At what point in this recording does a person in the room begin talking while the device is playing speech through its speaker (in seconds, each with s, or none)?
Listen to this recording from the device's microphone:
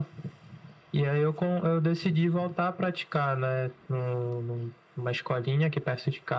none